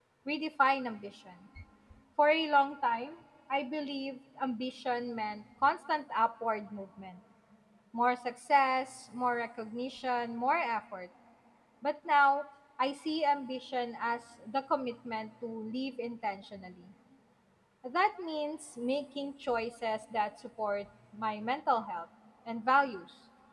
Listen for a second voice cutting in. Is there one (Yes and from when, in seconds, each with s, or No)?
No